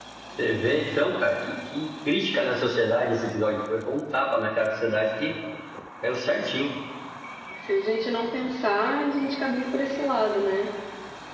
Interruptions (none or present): none